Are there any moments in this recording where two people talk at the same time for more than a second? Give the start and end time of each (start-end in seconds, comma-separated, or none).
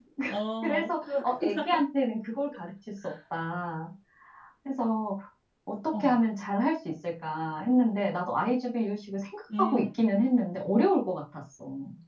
0.6-1.8